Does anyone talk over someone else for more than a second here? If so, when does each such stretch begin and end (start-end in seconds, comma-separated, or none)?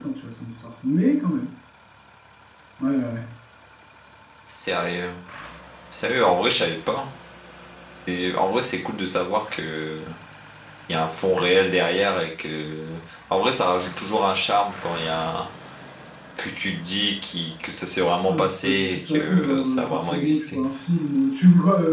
18.2-20.6